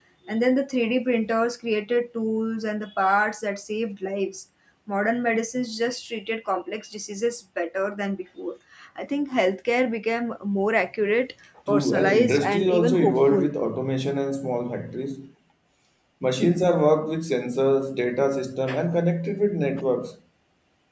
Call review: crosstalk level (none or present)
present